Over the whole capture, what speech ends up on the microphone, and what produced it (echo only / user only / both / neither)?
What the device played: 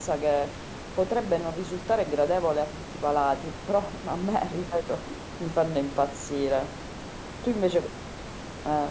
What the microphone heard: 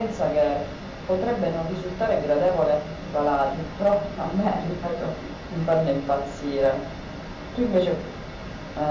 echo only